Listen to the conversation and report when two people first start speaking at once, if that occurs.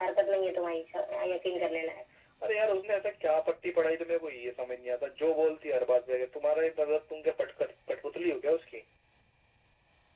none

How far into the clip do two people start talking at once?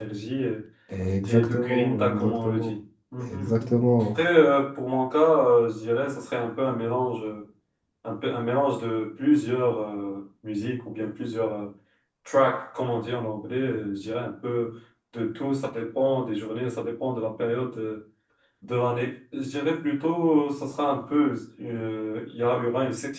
1.2 s

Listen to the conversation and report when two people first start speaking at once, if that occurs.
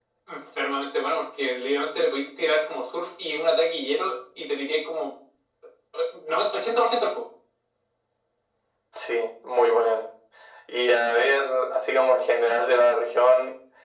none

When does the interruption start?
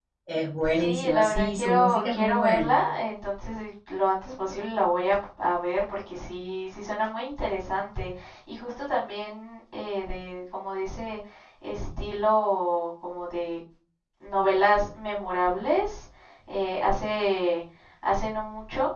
0.8 s

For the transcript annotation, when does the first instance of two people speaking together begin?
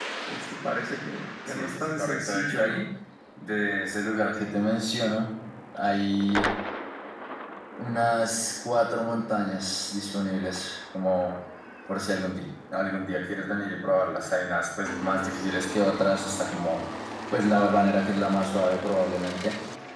1.4 s

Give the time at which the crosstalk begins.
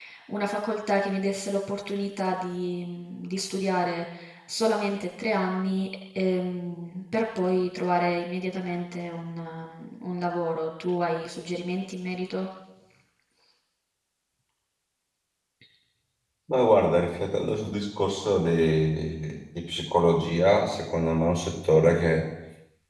none

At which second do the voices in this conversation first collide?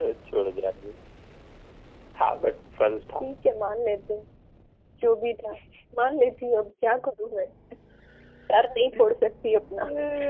none

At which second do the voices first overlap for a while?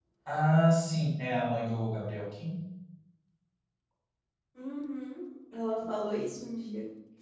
none

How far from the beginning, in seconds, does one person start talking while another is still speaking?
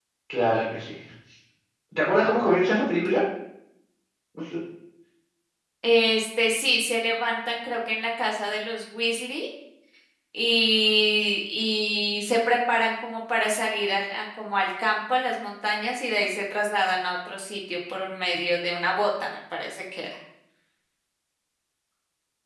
none

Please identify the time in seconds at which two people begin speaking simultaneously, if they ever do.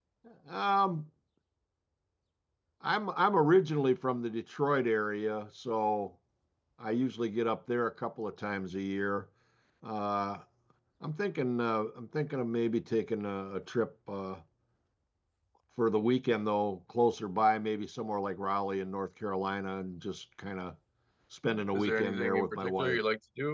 21.7 s

